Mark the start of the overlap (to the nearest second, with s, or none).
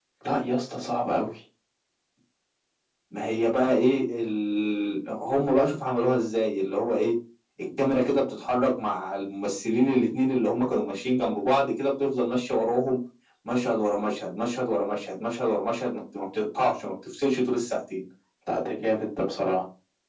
none